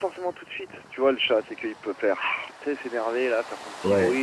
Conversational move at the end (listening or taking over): taking over